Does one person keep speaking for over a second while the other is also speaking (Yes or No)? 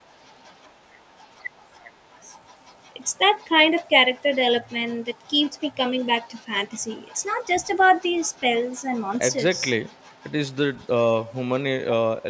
No